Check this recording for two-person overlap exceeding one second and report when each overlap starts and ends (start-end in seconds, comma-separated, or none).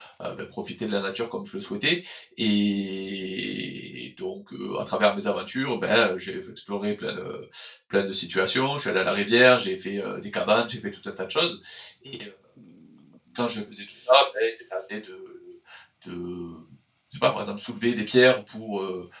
none